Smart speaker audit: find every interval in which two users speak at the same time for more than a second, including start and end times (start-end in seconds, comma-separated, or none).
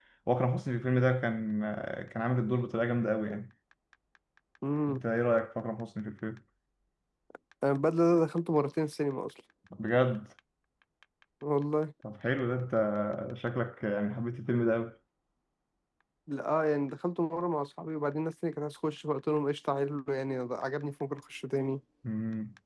none